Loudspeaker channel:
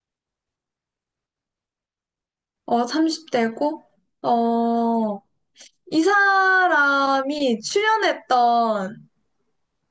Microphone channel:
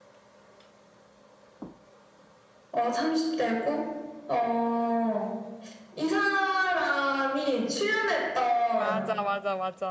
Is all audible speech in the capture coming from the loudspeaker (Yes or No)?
No